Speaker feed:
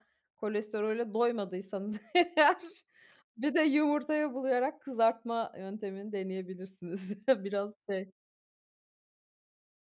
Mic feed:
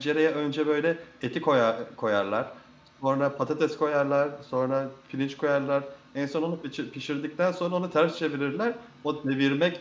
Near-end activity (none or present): present